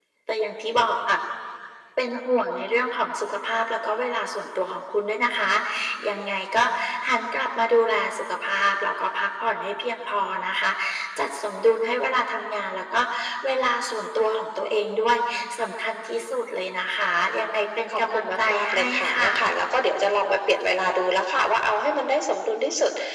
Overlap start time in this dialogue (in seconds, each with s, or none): 17.9 s